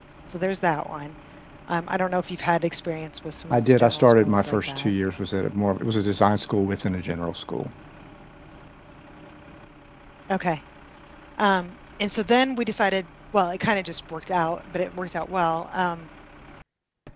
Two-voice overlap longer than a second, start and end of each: 3.5-4.9

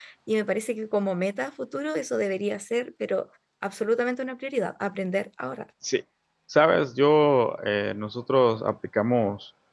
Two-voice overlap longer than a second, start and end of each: none

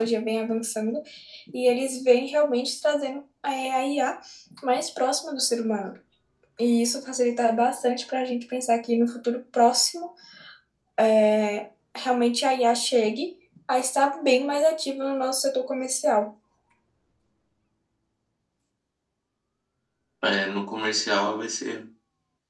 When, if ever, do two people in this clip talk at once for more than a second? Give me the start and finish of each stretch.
none

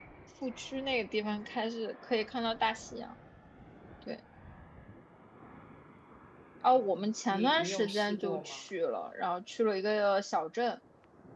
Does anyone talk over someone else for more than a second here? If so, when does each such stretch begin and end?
7.3-8.6

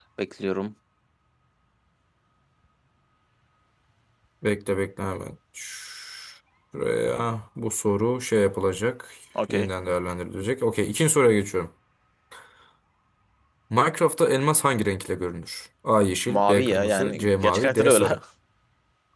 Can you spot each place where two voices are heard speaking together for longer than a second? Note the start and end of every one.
16.3-18.1

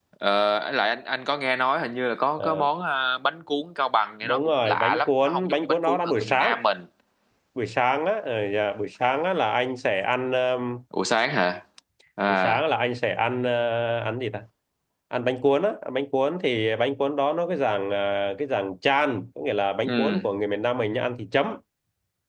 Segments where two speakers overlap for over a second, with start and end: 4.2-6.5

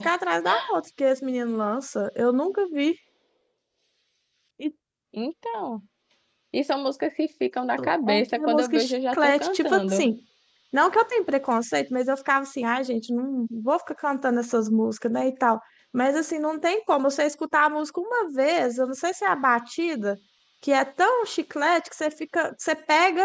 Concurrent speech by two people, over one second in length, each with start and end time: 8.1-10.1

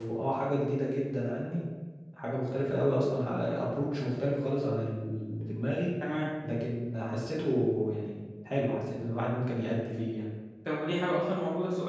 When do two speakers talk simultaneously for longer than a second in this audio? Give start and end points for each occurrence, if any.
none

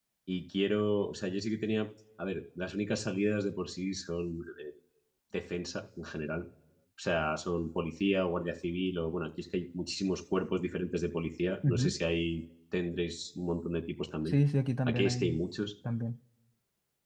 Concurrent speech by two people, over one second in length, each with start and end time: none

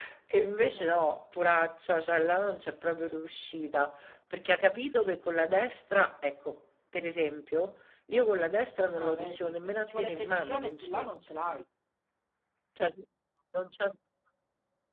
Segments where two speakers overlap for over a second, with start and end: 8.9-11.1

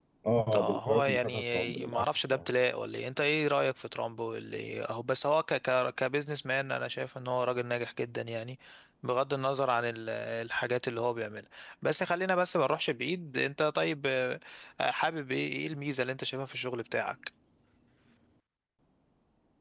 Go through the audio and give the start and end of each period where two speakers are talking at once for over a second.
0.5-2.3

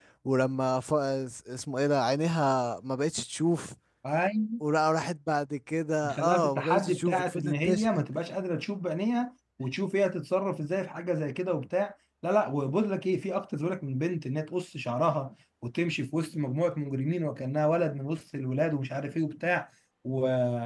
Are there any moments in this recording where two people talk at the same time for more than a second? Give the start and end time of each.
6.2-8.0

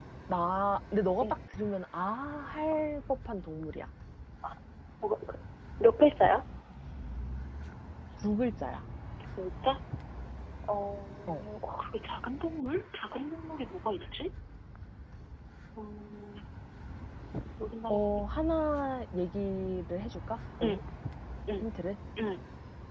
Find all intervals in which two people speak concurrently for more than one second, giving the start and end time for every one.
none

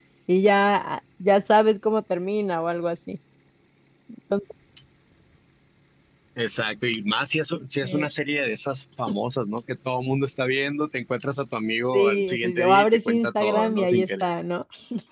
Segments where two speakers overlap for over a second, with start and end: 11.9-14.3

